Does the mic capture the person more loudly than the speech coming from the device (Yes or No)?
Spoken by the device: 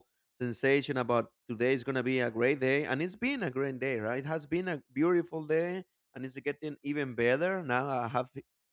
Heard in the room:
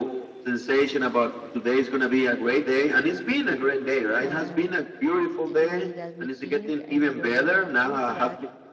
No